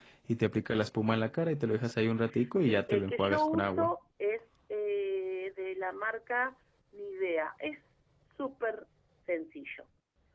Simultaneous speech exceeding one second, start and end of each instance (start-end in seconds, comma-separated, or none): 2.7-3.9